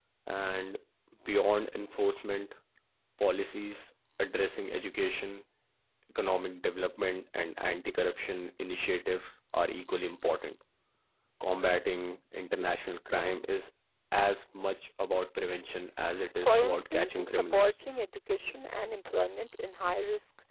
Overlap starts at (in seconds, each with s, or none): 16.4 s